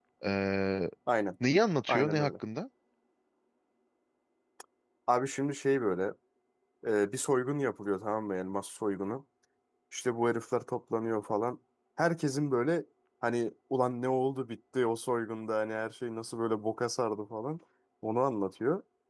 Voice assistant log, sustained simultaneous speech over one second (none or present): none